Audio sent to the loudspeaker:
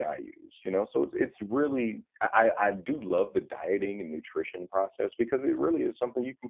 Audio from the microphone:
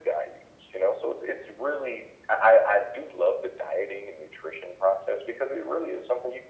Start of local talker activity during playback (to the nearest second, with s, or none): none